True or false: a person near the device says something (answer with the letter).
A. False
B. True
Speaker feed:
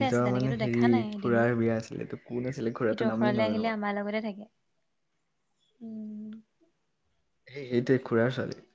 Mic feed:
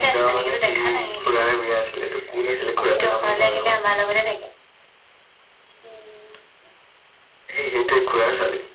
B